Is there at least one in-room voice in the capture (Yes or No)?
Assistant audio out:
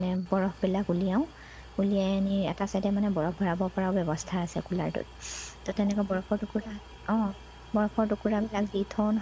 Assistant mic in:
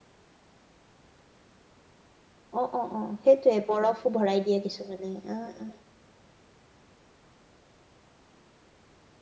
Yes